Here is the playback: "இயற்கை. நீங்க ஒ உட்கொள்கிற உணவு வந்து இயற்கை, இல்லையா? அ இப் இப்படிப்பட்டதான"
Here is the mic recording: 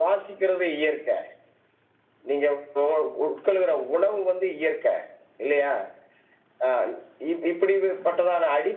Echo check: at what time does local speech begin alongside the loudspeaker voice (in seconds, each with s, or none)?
none